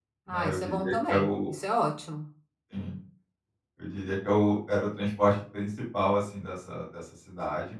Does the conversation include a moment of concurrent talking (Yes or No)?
Yes